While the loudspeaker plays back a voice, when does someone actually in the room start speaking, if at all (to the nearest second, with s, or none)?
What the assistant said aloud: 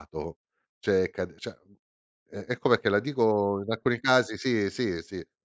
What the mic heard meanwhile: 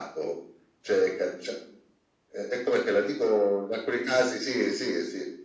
none